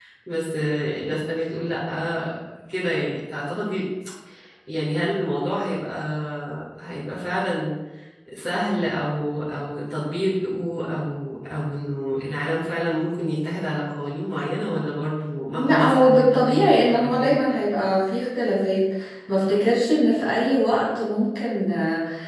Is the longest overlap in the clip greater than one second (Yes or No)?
Yes